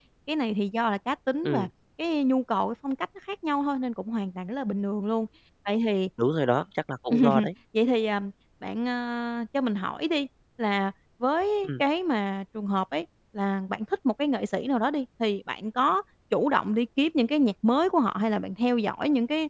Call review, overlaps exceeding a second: none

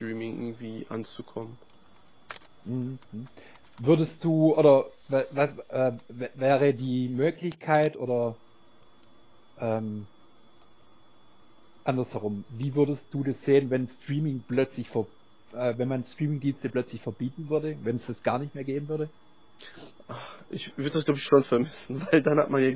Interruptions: none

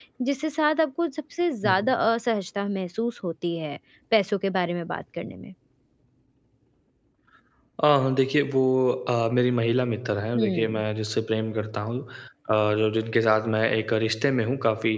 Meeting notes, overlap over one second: none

